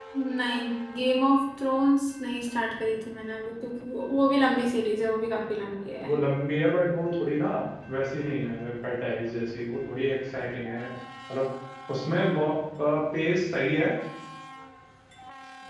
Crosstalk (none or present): none